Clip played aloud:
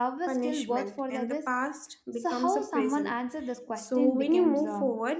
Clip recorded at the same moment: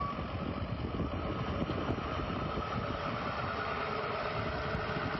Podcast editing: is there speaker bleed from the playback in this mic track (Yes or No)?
No